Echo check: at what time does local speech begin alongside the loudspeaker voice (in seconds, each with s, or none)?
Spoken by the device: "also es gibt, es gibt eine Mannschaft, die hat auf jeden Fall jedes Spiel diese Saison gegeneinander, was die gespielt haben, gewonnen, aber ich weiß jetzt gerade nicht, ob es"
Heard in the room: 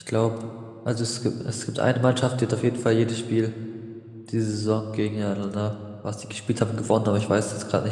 none